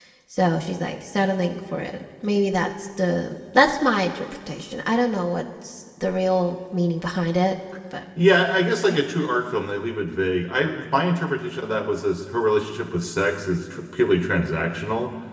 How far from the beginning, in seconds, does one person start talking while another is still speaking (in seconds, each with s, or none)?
none